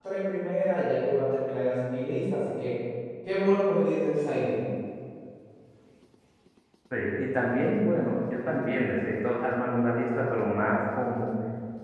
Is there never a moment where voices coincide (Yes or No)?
Yes